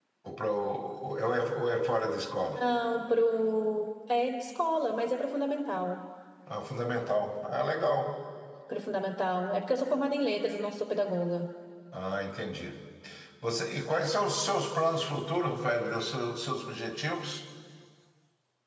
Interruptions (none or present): none